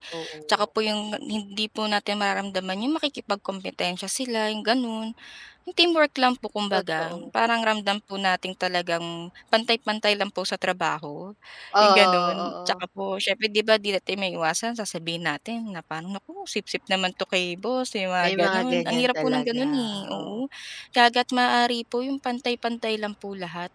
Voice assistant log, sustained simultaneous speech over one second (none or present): present